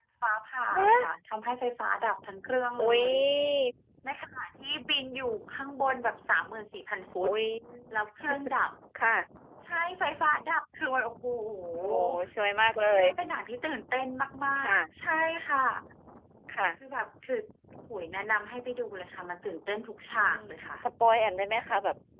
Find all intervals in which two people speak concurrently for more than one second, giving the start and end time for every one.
none

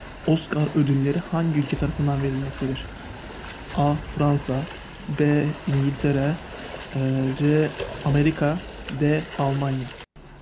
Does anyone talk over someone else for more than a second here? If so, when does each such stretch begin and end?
none

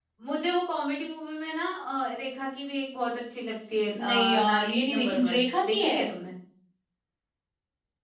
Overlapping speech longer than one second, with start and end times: 4.0-6.0

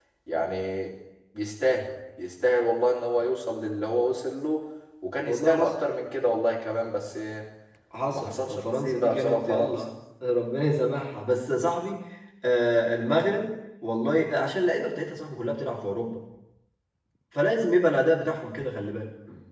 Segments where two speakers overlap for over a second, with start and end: 8.1-9.8

